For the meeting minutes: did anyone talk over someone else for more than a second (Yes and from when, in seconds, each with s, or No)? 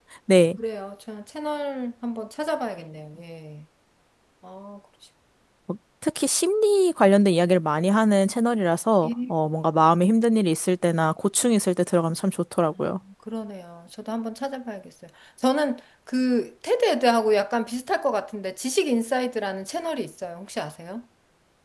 No